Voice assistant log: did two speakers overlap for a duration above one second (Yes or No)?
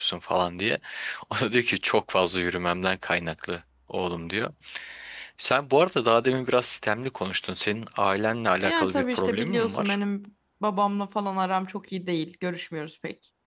Yes